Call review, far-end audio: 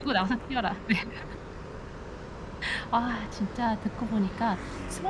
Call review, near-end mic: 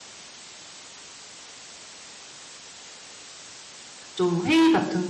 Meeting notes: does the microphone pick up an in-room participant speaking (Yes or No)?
Yes